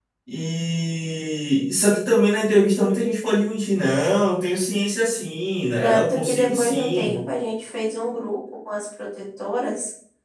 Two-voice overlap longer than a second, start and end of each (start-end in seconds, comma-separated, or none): 5.8-7.2